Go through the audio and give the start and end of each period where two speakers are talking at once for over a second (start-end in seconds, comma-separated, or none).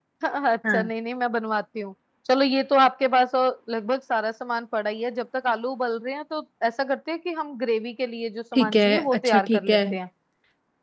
8.6-9.8